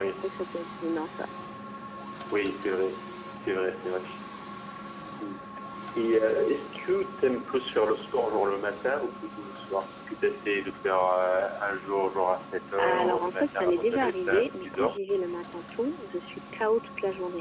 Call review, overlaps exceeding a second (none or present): present